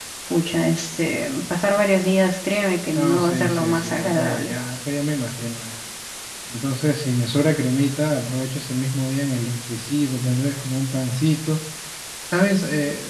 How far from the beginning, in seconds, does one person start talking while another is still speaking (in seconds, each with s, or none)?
3.0 s